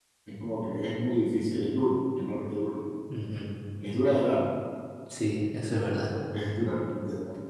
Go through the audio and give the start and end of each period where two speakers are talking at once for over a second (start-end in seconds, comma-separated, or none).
none